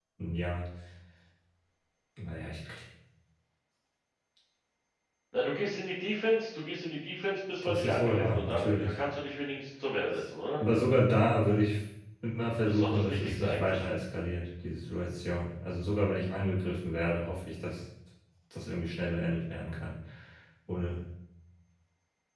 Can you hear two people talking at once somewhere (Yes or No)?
Yes